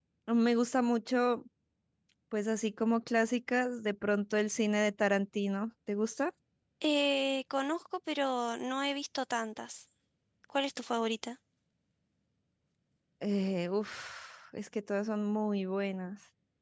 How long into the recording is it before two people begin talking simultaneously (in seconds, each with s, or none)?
none